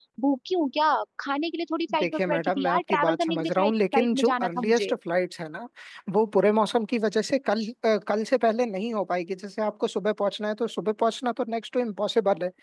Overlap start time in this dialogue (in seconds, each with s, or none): 1.9 s